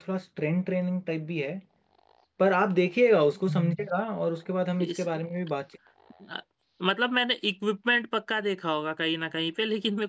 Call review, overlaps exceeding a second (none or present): none